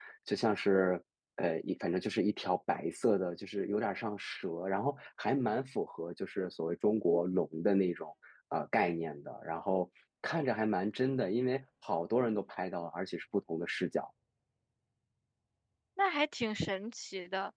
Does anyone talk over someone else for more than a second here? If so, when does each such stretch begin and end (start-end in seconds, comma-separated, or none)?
none